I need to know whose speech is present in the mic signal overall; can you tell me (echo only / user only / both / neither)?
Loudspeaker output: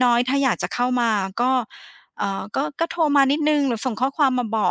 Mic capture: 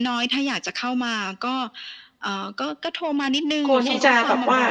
both